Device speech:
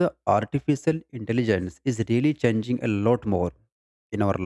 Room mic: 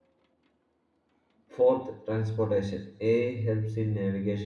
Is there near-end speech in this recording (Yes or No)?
Yes